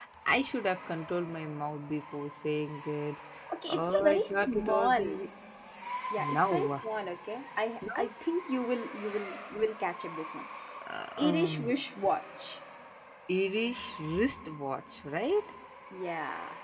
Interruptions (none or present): present